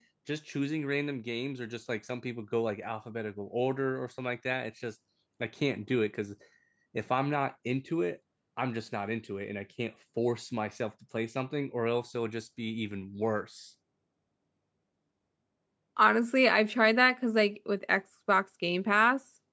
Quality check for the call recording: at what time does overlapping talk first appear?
none

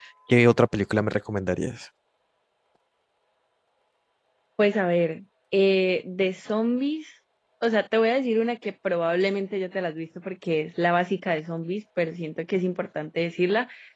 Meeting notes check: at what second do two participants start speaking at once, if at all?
none

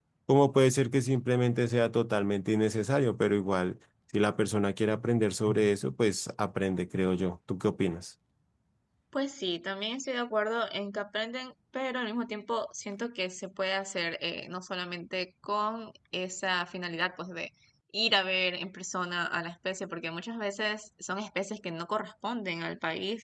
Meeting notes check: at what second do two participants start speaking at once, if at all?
none

